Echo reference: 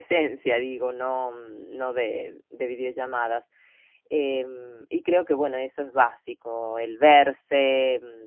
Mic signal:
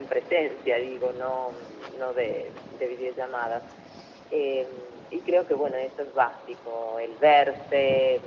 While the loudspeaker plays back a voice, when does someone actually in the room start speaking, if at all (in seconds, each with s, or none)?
none